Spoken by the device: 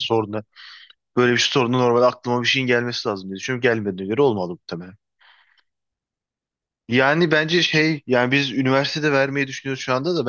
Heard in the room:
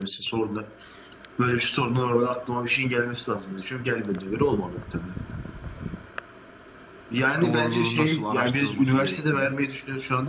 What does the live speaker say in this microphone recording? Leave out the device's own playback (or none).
doğruluğu nasıl araştırılması gerektiğini.